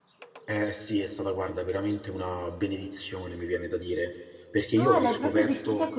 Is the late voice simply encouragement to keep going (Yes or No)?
No